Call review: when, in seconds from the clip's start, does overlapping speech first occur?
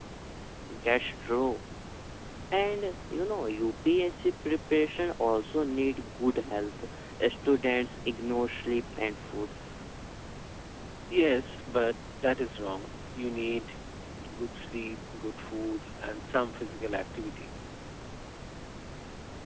none

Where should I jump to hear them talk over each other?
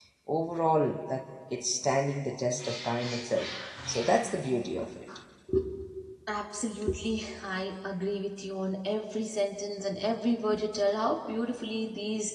none

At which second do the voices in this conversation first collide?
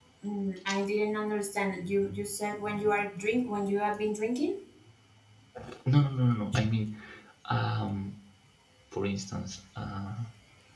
none

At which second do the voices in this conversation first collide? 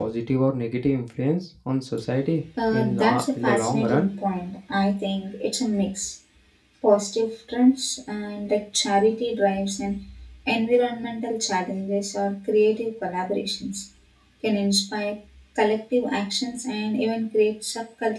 3 s

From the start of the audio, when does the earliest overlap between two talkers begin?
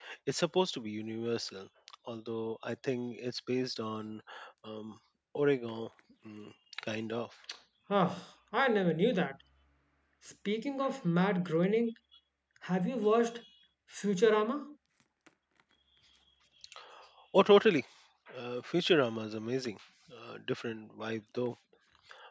none

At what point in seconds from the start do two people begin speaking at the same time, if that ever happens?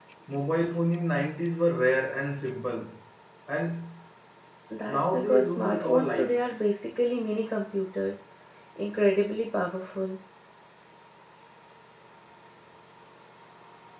5 s

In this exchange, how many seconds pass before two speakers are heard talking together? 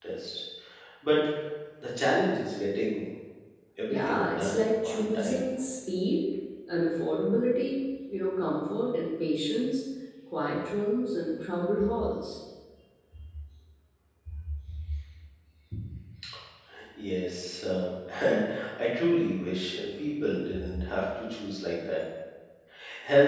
4 s

